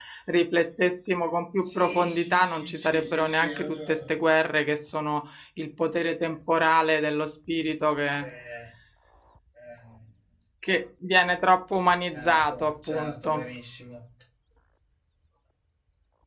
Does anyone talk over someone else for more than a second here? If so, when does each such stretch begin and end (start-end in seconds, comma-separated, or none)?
1.6-4.1, 12.1-13.4